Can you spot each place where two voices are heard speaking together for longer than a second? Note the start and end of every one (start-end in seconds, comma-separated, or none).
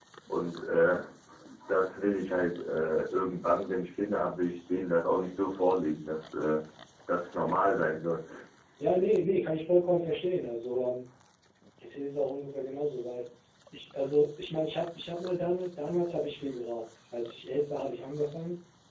none